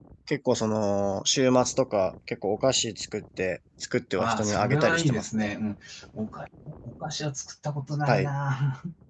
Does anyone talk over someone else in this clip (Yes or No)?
Yes